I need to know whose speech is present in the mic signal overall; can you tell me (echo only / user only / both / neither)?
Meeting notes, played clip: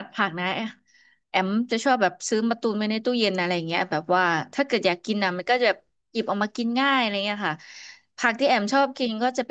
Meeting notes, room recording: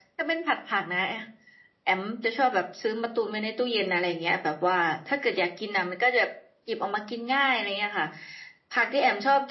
echo only